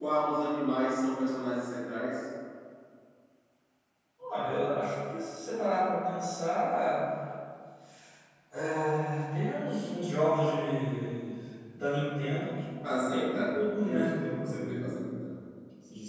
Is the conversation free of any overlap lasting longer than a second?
No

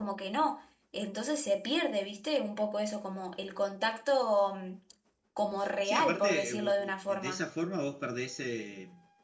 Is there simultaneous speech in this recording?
Yes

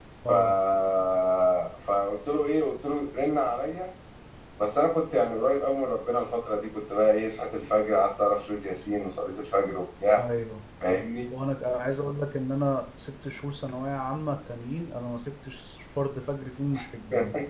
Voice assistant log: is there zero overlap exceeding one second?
Yes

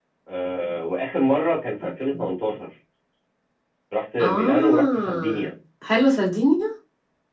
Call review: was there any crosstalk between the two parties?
Yes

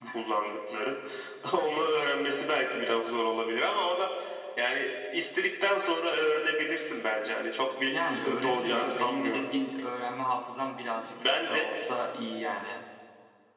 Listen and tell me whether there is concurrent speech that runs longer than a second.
Yes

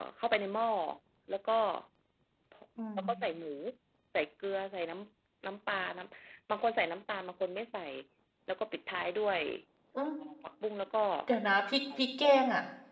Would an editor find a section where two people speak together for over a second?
No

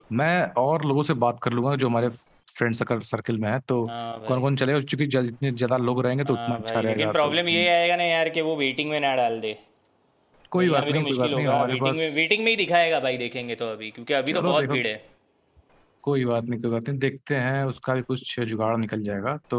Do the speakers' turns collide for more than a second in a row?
Yes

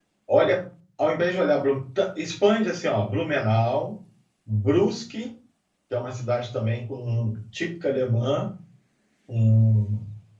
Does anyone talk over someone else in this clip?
No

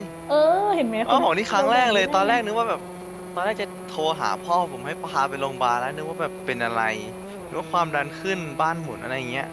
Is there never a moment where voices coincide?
No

